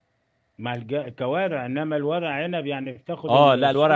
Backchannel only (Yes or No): No